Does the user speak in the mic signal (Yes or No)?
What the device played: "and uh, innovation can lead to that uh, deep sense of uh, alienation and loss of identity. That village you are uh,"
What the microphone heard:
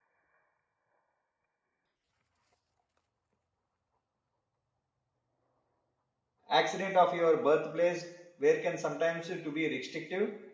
Yes